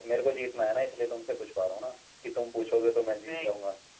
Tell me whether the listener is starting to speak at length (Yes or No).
Yes